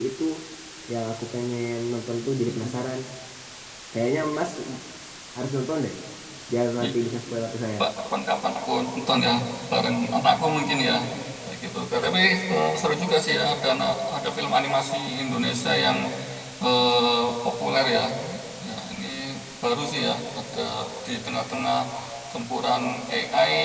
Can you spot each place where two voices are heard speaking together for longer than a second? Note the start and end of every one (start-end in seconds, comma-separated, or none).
none